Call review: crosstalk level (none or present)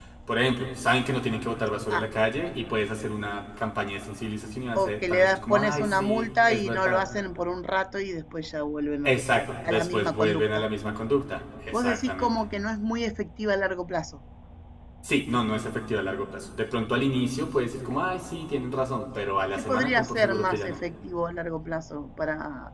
present